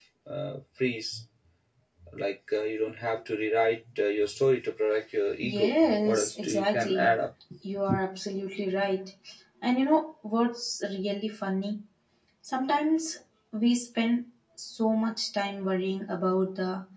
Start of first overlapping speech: 5 s

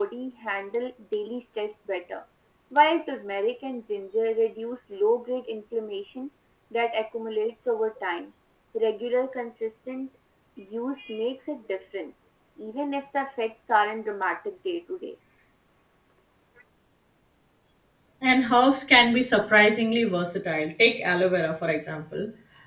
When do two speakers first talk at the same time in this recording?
none

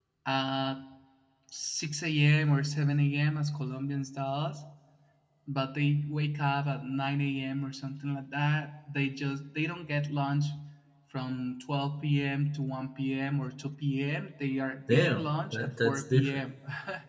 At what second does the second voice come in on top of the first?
15 s

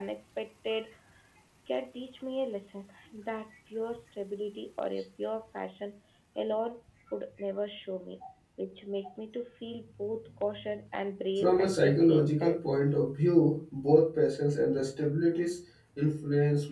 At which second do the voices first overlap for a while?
11 s

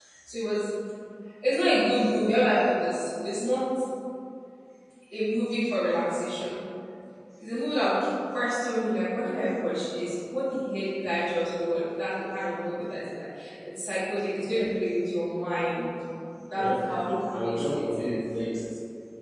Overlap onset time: 17 s

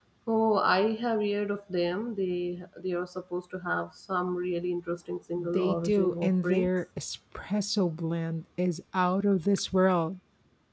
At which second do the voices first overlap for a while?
5 s

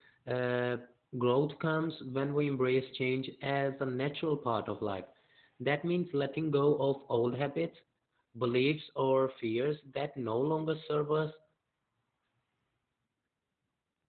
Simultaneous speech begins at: none

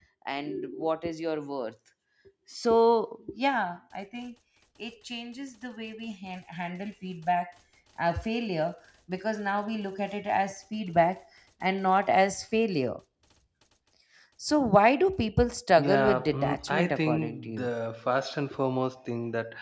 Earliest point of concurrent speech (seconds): 16 s

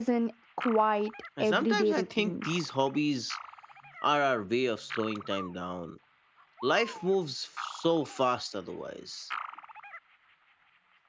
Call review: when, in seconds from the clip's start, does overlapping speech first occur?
1 s

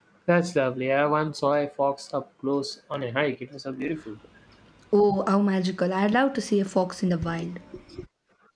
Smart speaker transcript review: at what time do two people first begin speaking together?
none

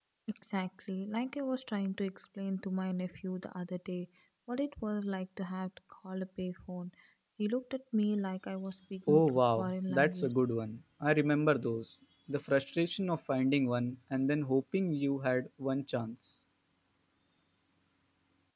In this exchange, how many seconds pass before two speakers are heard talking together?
9 s

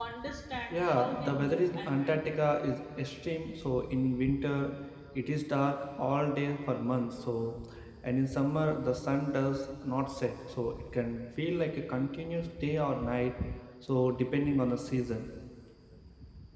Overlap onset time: 1 s

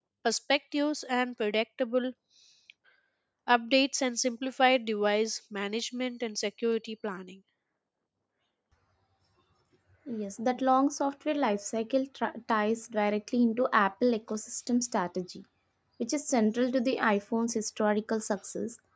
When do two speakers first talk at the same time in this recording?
none

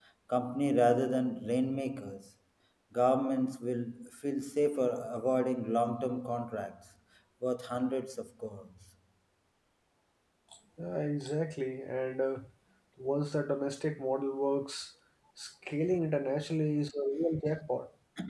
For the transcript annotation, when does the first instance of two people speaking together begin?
none

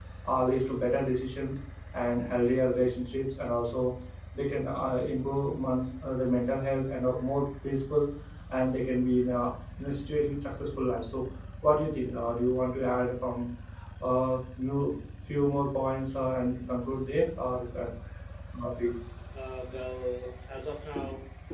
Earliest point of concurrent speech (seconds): none

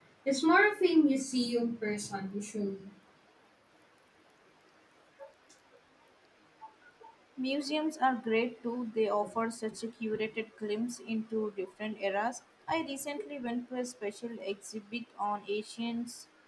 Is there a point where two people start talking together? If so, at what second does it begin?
none

